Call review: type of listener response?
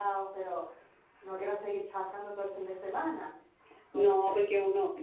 taking over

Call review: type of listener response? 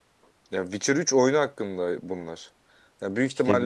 listening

